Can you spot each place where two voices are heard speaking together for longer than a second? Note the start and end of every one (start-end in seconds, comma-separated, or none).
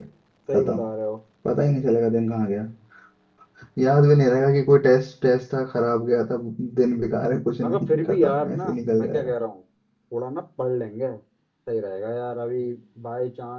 7.6-9.3